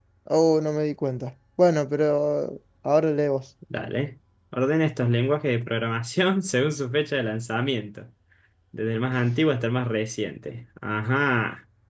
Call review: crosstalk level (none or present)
none